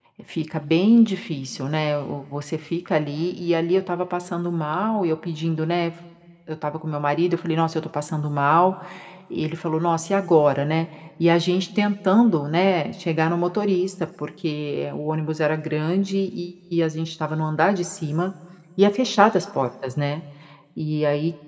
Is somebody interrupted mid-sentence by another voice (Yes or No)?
No